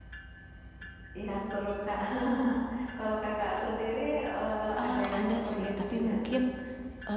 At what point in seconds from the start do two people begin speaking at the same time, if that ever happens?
4.8 s

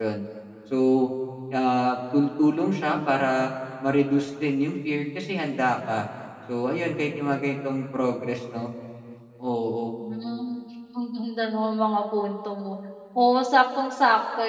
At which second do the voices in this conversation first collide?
none

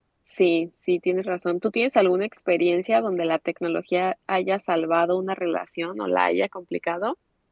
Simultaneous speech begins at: none

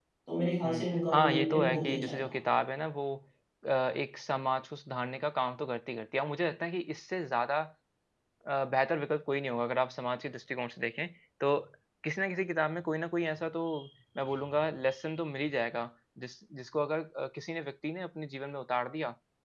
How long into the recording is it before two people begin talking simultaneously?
0.7 s

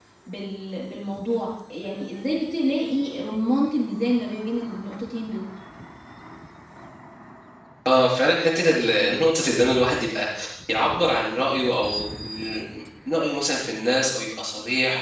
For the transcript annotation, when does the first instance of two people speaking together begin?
none

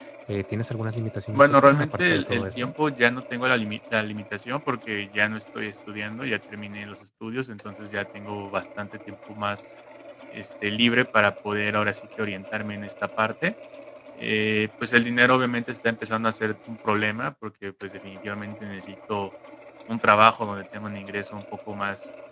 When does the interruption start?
1.3 s

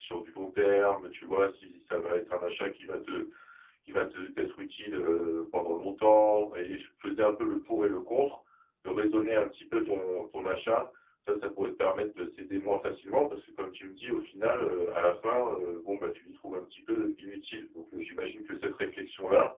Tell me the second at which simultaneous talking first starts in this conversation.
none

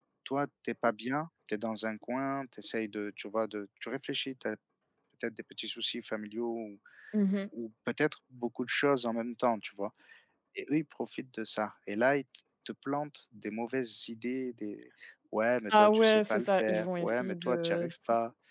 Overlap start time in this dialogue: 15.7 s

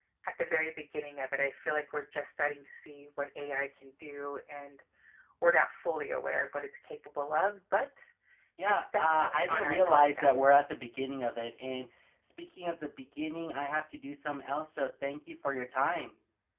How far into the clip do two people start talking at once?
8.7 s

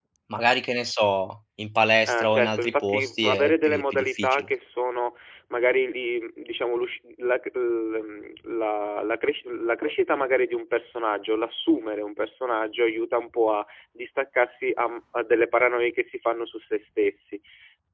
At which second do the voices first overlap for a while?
2.1 s

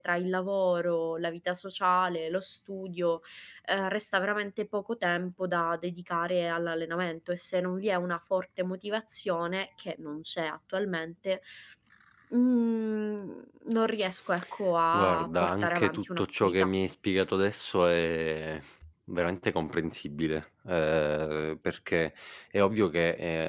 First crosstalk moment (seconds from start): 14.9 s

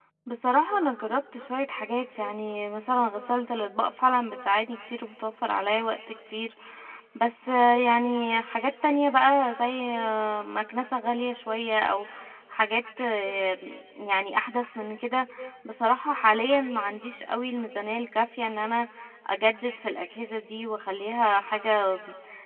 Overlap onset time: none

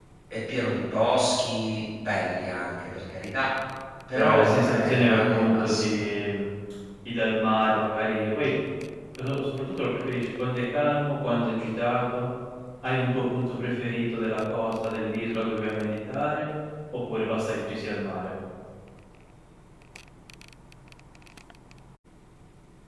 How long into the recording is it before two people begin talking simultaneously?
4.2 s

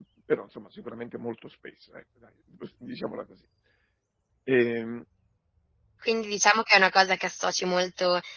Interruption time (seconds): none

